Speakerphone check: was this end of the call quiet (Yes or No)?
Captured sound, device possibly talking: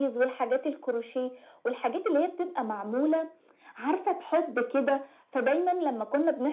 Yes